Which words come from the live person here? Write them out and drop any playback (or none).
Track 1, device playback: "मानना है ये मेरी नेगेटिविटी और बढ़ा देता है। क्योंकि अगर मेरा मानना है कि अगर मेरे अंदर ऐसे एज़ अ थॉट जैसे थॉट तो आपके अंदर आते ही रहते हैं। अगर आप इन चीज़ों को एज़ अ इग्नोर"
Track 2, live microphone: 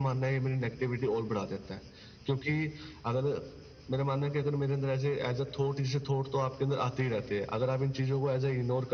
none